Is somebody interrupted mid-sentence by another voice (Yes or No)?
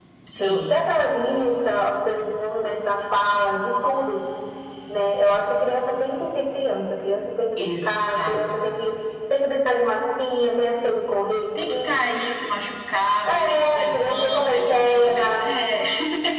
Yes